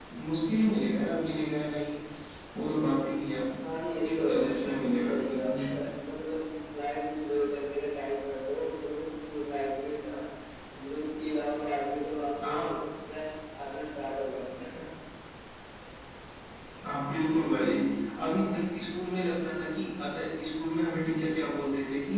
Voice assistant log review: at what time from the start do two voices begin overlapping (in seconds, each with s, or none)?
4.0 s